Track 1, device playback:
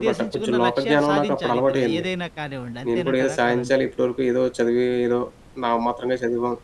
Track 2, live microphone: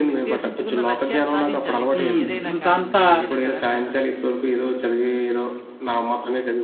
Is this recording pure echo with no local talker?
No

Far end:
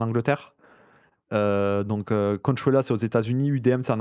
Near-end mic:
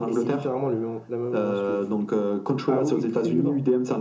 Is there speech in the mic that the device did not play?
Yes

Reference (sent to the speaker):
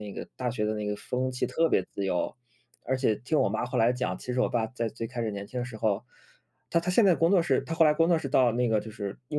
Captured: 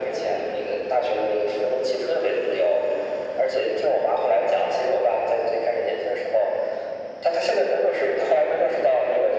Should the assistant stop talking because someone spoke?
No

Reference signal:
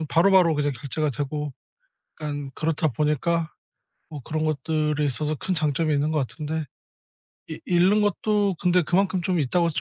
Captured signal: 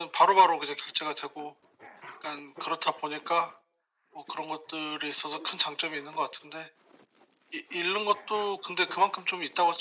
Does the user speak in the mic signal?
No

